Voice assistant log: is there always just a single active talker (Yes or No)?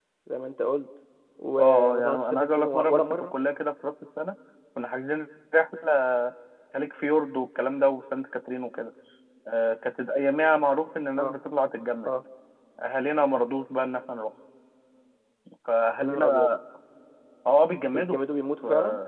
No